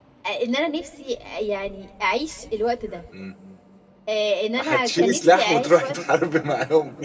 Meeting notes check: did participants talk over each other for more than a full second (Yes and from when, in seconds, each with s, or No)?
Yes, from 4.6 s